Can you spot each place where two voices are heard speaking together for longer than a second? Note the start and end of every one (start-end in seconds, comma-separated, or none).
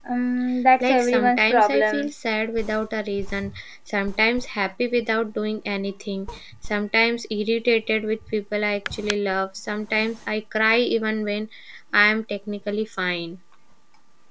0.8-2.1